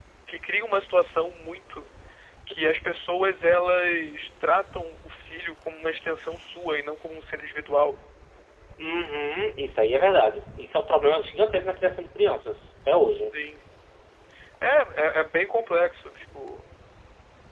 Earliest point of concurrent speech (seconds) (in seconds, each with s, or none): none